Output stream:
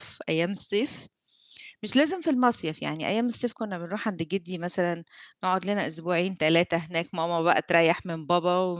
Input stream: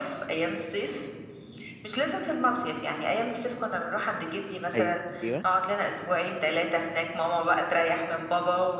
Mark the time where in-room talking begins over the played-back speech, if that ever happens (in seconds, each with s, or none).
4.7 s